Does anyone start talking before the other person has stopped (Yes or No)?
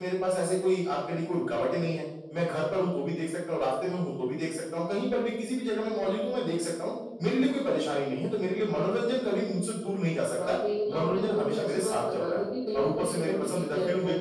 Yes